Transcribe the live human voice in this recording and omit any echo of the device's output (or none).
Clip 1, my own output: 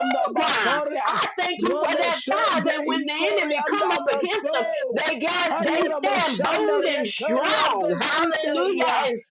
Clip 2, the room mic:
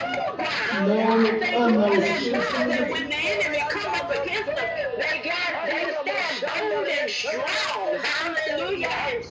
Known and unknown sins, Father.